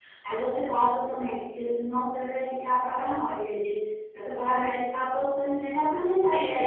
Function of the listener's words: taking over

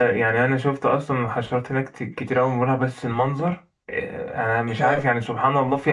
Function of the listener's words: listening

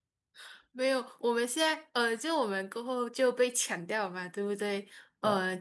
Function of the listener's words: listening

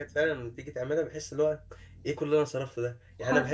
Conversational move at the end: listening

